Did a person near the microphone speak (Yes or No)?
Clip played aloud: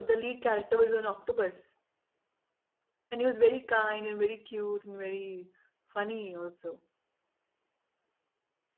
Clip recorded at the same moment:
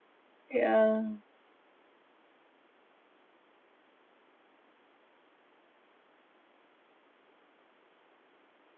Yes